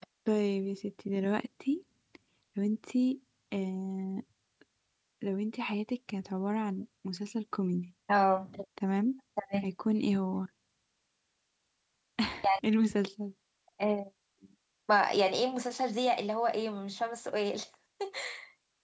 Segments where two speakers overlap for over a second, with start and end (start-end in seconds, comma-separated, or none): none